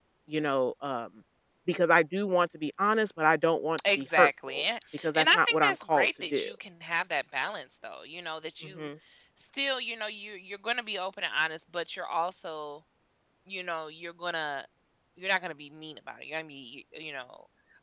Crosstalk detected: Yes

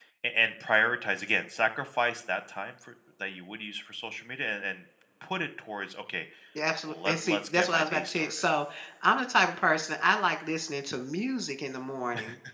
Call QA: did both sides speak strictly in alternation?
No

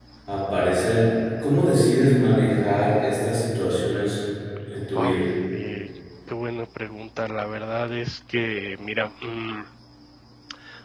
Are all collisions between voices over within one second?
Yes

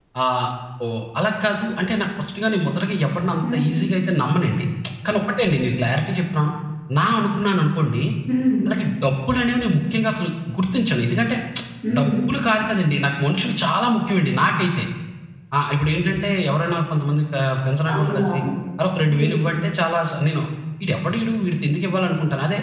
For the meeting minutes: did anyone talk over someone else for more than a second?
No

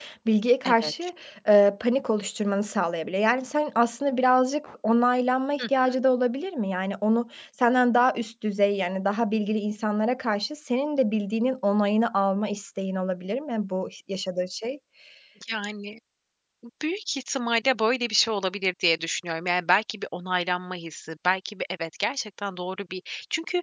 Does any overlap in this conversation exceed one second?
No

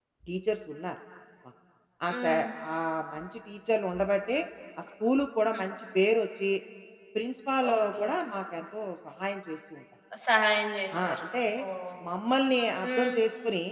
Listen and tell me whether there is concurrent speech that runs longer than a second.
No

